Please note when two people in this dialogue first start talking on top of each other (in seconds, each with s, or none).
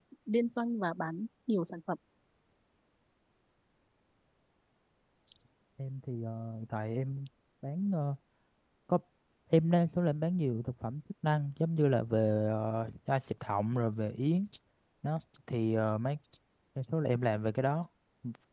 none